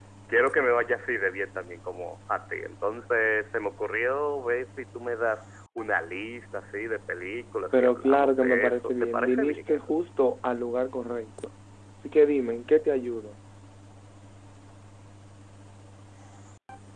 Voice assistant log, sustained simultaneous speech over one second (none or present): present